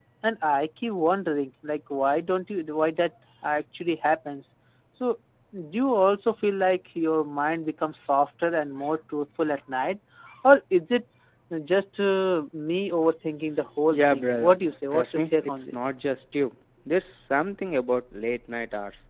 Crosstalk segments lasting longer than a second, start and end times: 13.9-15.8

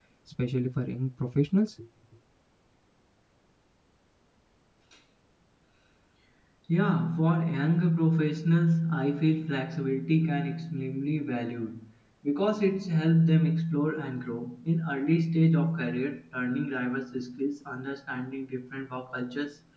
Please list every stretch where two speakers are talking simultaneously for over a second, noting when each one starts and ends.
none

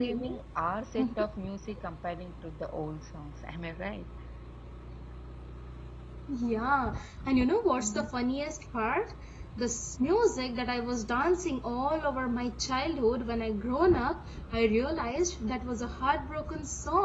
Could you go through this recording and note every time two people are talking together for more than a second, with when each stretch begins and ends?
none

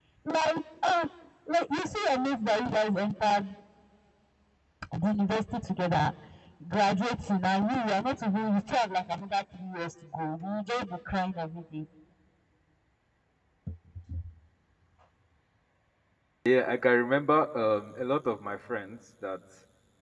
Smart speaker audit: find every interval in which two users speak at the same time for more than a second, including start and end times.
none

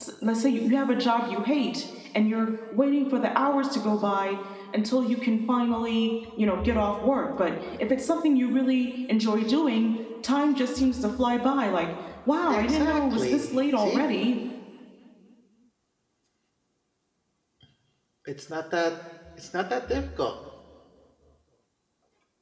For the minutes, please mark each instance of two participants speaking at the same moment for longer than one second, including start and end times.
12.5-14.0

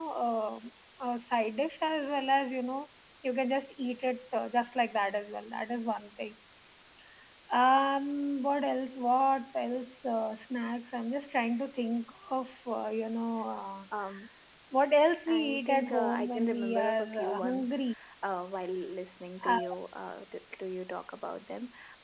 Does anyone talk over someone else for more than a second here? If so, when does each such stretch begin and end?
15.3-17.8

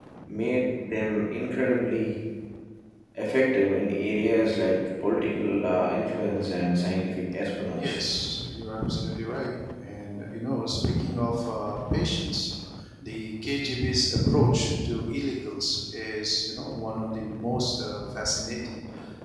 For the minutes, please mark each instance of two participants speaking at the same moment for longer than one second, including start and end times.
none

